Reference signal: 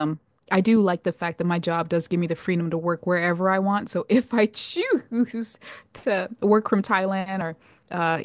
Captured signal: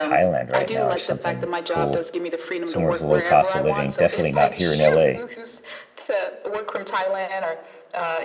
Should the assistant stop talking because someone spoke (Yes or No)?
Yes